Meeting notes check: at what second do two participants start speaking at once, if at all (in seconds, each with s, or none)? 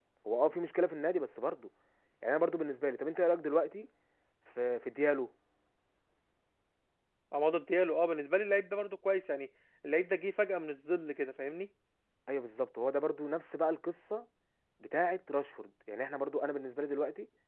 none